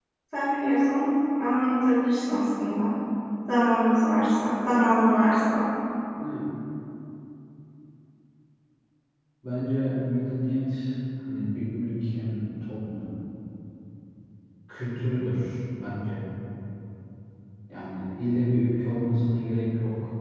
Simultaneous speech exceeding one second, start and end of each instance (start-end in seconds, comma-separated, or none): none